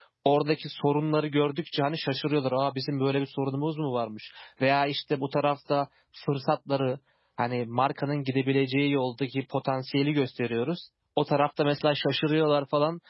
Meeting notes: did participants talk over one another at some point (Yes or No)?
No